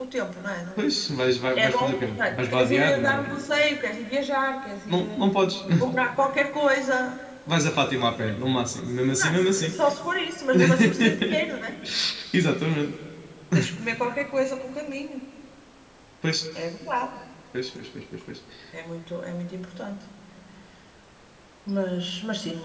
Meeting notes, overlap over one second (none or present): present